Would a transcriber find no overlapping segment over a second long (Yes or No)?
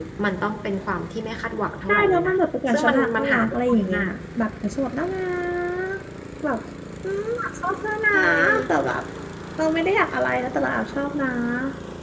No